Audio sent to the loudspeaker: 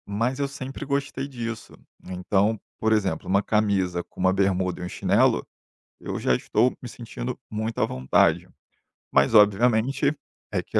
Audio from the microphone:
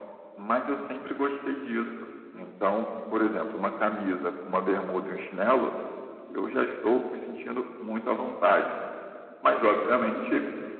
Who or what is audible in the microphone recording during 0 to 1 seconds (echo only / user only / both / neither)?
echo only